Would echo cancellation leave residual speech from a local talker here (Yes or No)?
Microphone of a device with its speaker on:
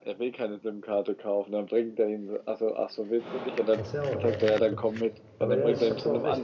Yes